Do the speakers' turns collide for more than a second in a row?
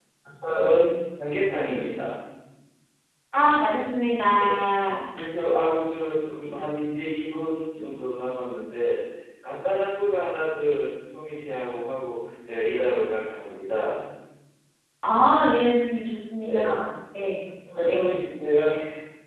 No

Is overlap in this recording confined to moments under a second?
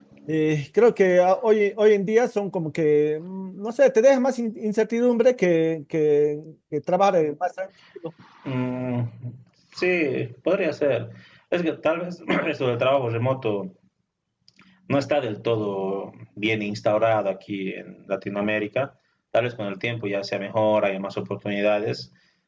Yes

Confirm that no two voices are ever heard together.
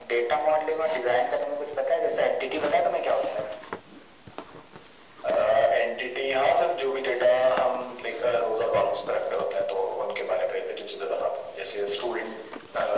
Yes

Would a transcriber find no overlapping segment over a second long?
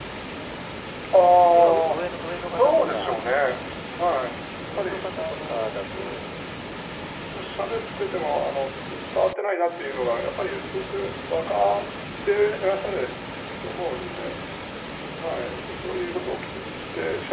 No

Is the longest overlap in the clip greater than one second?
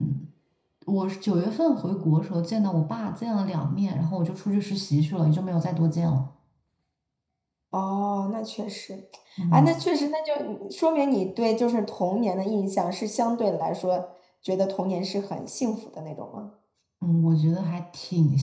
No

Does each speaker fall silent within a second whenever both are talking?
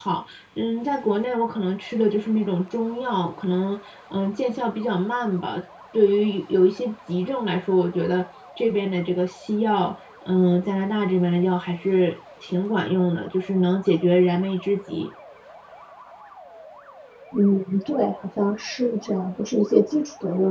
Yes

